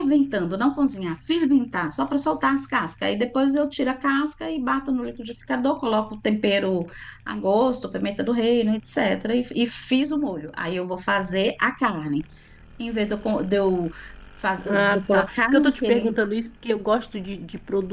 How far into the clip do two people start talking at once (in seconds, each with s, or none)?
14.7 s